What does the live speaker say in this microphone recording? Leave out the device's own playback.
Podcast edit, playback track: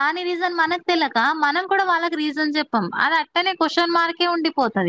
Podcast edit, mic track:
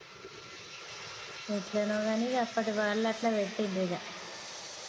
ఎట్లనో గాని ఇగ అప్పటి వాళ్ళు అట్లా పెట్టిండ్రు ఇగ

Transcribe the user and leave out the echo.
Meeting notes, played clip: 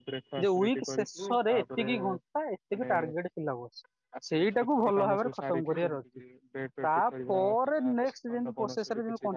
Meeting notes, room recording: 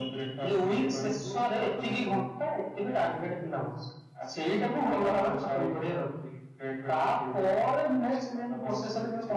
none

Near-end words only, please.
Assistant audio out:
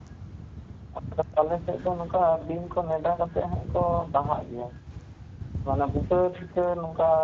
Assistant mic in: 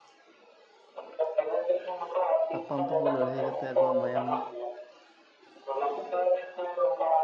ᱛᱟᱯᱟᱢ ᱛᱩᱯᱩ ᱞᱟᱹᱲᱦᱟᱹᱭ ᱠᱟᱛᱮᱜ ᱟᱠᱚᱣᱟᱜ ᱢᱟᱭᱟᱢ

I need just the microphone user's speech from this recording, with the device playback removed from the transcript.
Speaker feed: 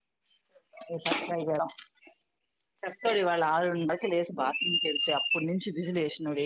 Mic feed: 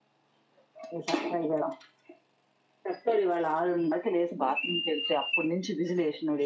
none

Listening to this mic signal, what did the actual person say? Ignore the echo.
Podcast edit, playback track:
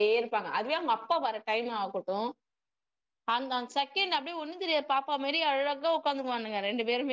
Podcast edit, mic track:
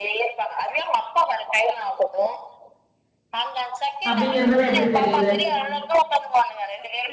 அப்டிங்றதெல்லா எப்டி தெரியுது

